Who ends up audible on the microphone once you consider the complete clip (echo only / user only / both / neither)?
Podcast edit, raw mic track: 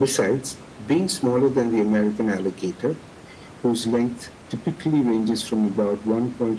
echo only